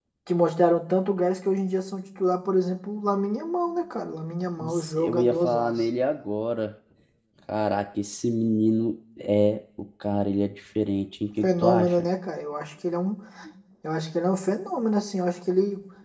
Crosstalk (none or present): present